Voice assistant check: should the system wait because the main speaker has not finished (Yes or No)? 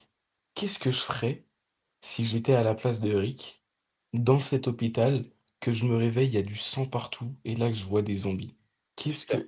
Yes